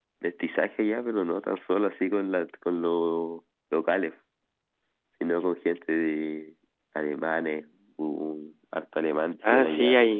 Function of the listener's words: taking over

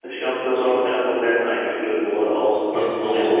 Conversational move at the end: taking over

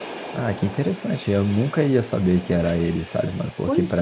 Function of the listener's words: listening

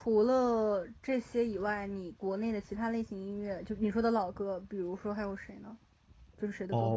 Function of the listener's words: taking over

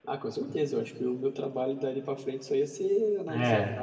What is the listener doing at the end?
listening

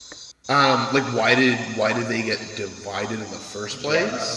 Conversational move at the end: taking over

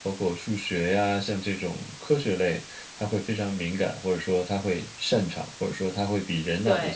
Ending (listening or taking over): listening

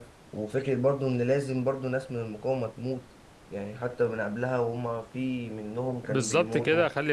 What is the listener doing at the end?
taking over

